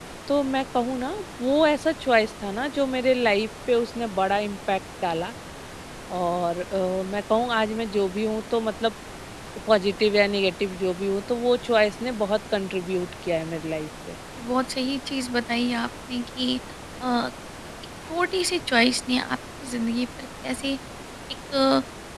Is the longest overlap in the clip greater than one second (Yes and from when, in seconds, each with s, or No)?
No